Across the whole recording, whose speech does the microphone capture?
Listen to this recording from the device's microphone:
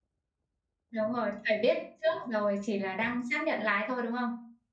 user only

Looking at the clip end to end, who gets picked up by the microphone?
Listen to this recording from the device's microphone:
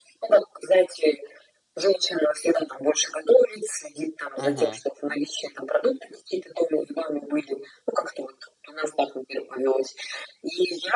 both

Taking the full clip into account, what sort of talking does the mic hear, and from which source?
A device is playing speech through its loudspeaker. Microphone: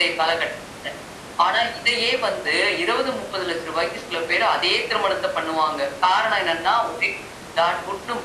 echo only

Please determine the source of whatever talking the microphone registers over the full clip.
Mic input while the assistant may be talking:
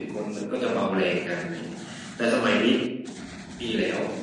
echo only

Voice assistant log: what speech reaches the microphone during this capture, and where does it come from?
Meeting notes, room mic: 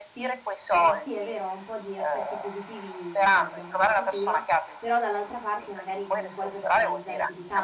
both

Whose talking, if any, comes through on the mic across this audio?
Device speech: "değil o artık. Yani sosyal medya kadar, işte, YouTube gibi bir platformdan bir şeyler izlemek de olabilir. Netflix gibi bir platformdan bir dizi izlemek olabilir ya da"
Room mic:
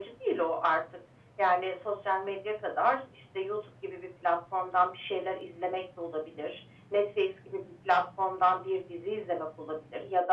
echo only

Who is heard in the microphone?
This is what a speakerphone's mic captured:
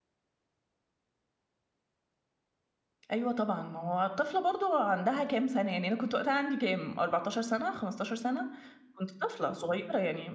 user only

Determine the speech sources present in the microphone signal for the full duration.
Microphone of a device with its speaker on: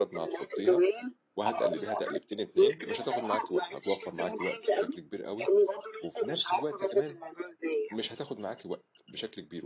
both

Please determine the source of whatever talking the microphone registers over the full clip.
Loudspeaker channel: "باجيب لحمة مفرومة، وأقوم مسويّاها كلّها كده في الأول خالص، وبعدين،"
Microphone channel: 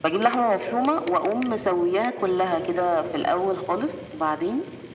echo only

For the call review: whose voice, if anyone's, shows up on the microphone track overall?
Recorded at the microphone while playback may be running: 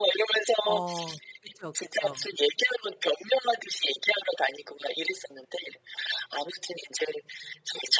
both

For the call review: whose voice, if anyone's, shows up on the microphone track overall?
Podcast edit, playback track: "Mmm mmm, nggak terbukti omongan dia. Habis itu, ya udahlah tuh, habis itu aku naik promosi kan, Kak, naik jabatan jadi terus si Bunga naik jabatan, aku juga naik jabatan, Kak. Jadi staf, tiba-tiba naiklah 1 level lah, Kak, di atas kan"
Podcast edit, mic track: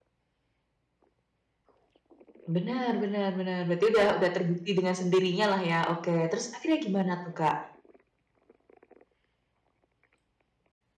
user only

